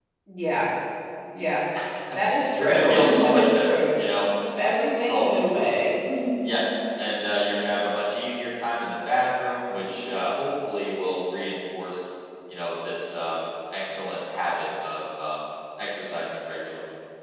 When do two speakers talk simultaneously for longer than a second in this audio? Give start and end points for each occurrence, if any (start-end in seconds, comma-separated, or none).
2.6-3.8